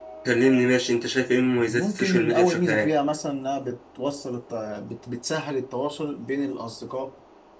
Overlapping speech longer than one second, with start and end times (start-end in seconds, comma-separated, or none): 1.7-2.9